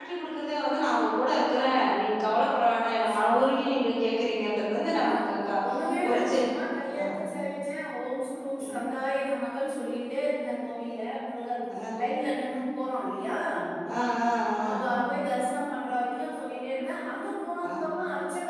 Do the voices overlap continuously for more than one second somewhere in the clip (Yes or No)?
No